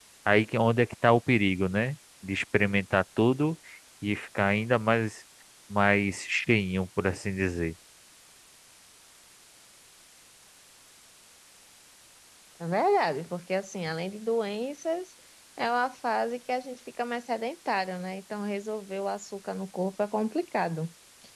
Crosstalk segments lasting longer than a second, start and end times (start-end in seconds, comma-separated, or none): none